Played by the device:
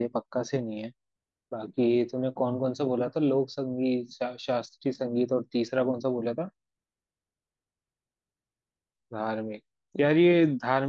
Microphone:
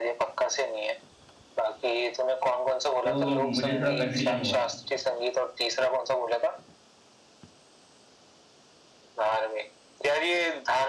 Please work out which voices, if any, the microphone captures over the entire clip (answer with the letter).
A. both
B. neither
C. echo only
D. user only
A